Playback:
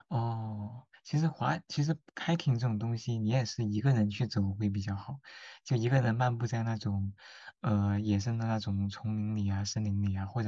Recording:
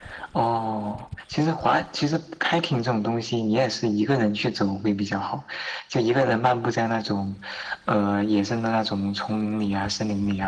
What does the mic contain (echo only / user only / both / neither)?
echo only